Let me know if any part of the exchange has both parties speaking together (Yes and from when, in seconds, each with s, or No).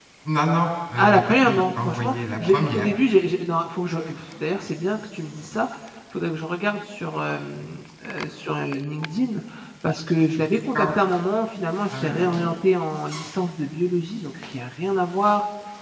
Yes, from 1.0 s